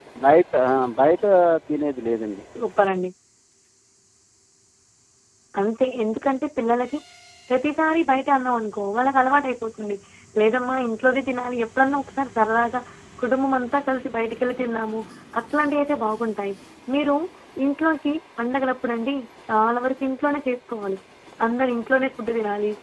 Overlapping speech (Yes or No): No